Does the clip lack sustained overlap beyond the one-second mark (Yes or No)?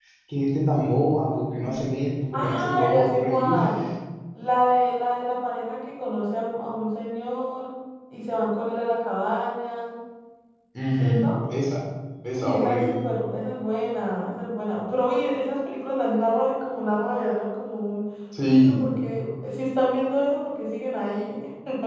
No